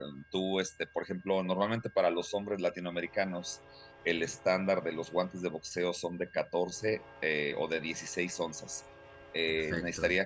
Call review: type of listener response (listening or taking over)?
listening